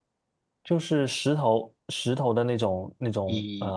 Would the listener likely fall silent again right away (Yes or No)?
No